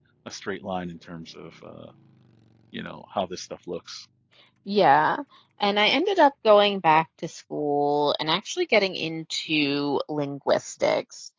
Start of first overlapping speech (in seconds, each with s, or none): none